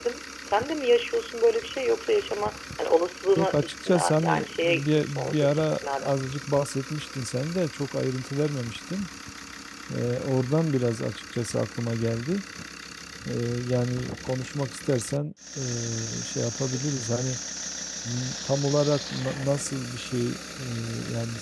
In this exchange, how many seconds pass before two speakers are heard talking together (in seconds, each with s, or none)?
3.4 s